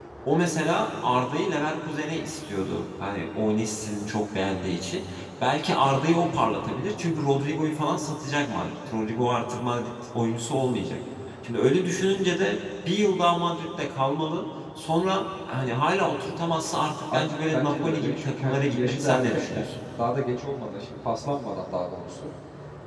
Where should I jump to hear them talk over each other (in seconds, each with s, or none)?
17.1 s